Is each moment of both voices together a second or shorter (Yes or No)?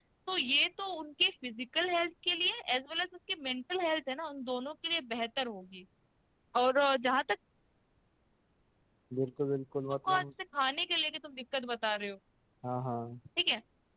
Yes